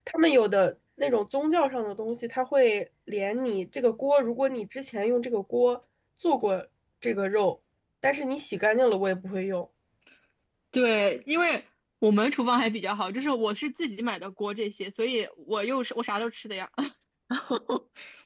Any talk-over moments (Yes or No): No